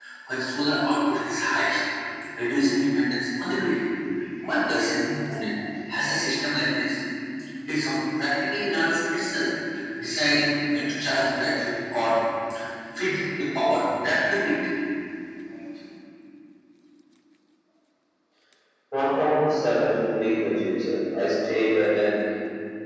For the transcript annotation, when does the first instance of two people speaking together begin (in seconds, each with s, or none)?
none